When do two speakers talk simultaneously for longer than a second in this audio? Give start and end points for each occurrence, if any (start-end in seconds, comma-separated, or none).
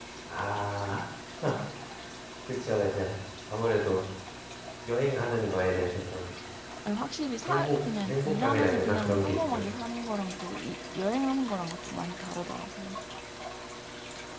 7.5-9.7